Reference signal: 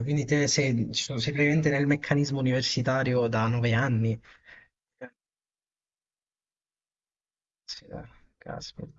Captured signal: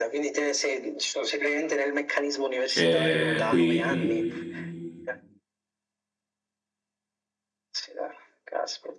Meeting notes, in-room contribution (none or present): present